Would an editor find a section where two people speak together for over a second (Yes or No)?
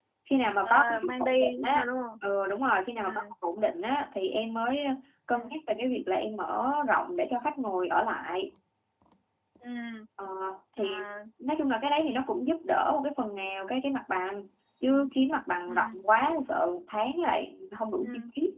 Yes